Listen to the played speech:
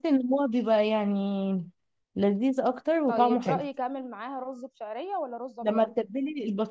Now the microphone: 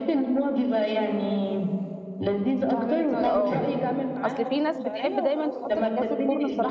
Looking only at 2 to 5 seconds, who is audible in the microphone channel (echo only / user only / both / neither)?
both